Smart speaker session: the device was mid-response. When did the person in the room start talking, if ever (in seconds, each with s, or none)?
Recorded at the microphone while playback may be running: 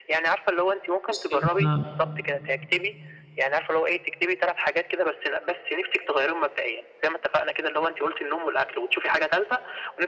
1.1 s